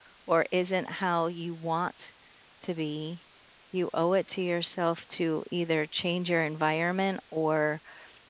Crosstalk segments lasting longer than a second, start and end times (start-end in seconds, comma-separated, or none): none